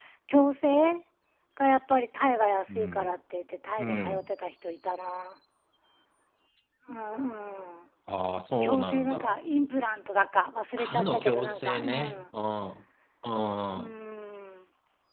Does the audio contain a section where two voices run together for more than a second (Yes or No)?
Yes